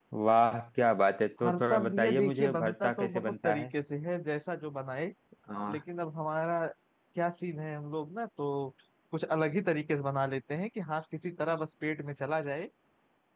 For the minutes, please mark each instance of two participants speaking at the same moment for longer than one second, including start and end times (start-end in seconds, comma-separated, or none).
1.4-3.7